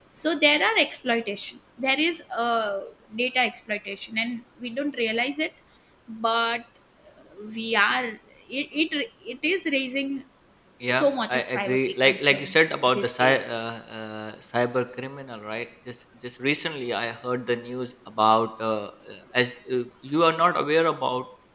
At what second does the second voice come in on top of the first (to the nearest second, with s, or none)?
11 s